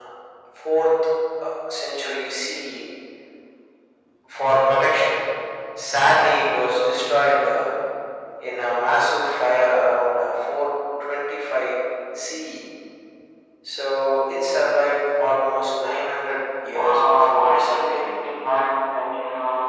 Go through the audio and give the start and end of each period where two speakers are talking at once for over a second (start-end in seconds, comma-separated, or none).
16.7-18.3